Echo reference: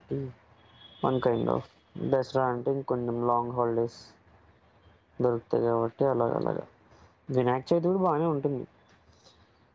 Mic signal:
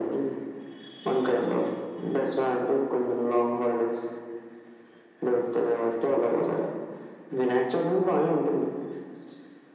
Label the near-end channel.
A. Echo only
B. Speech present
A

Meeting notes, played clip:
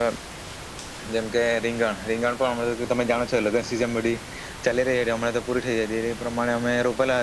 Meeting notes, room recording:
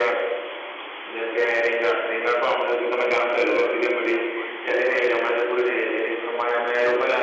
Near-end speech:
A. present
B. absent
A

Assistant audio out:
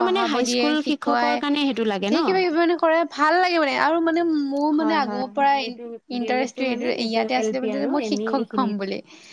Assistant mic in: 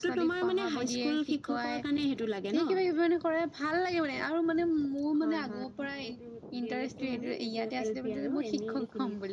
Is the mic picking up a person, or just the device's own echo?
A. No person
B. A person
A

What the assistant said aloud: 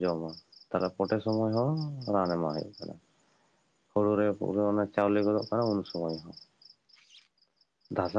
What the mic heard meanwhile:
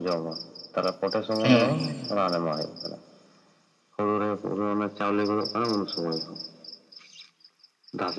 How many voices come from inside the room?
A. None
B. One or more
B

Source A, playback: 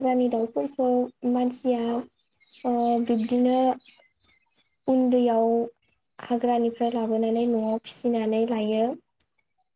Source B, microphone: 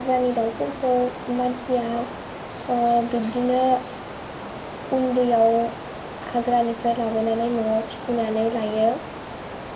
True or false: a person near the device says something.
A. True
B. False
B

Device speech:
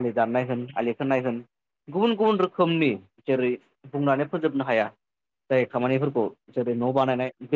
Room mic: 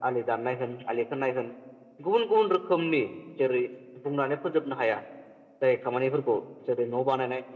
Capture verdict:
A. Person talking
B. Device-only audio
B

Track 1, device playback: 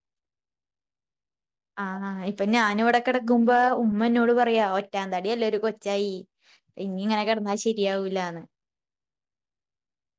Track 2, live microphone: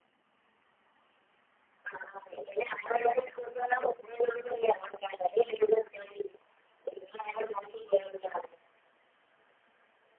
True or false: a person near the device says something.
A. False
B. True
A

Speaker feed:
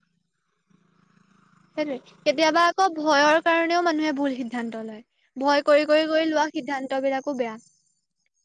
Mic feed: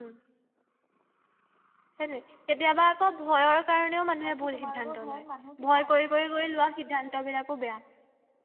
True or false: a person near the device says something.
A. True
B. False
A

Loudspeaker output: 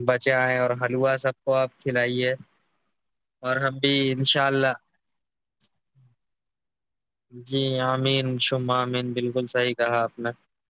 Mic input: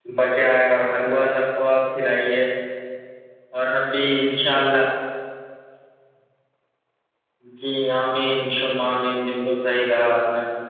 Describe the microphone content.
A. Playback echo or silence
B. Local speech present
A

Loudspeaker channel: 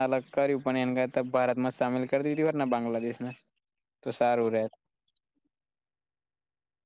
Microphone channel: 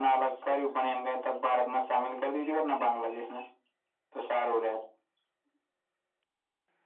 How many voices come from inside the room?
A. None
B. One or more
A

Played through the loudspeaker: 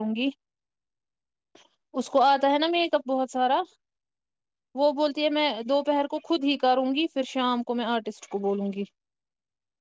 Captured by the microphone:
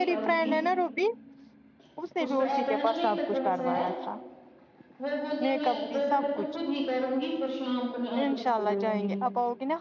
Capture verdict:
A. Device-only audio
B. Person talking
B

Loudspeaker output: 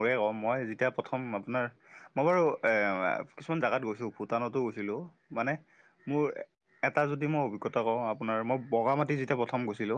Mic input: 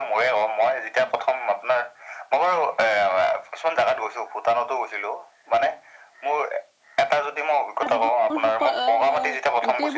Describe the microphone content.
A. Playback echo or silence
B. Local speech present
B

